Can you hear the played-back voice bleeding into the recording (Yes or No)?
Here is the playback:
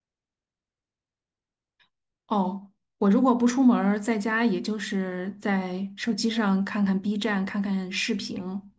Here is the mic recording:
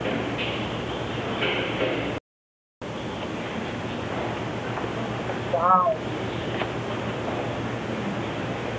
No